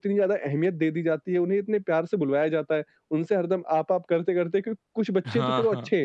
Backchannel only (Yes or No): Yes